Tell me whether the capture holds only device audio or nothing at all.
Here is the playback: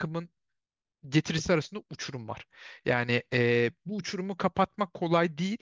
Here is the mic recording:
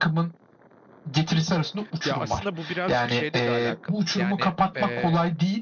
No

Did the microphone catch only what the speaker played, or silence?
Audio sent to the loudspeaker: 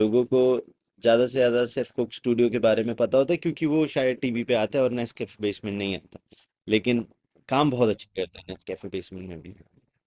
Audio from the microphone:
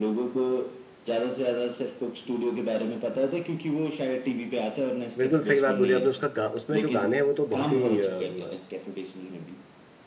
No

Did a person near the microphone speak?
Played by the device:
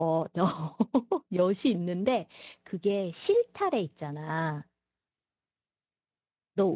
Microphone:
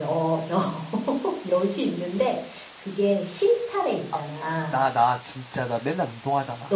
Yes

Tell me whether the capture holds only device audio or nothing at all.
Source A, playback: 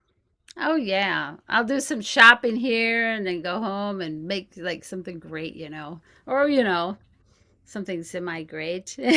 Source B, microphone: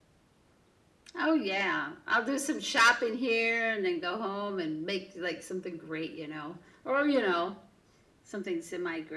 Yes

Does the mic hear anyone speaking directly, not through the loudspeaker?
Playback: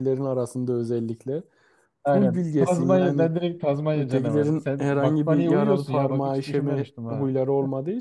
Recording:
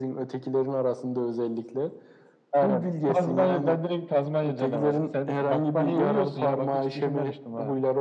No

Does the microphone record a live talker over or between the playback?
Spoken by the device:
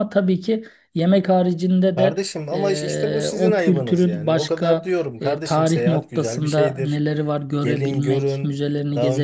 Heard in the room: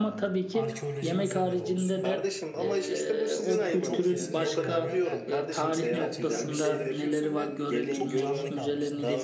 Yes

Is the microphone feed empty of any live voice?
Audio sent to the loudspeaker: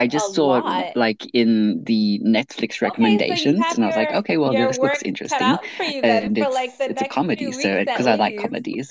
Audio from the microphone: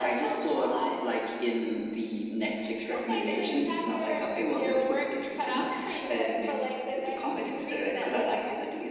Yes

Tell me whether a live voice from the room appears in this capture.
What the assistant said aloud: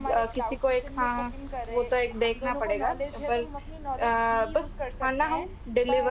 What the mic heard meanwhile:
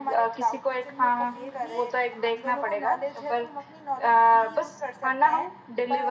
Yes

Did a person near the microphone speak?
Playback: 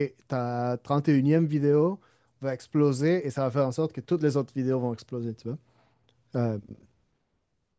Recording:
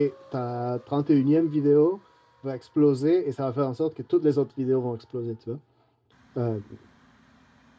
No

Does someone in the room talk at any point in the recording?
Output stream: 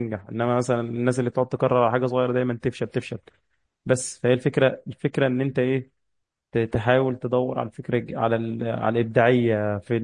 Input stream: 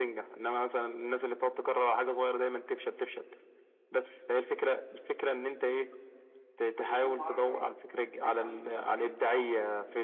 Yes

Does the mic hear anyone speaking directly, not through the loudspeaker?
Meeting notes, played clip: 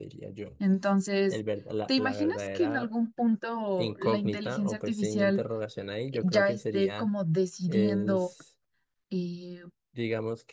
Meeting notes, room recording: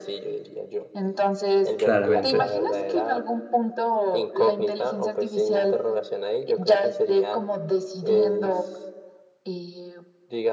Yes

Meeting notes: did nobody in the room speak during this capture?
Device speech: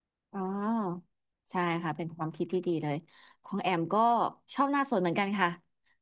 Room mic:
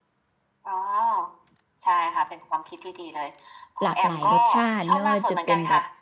No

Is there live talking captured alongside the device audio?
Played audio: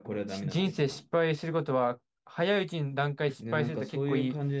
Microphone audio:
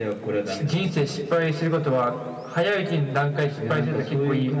No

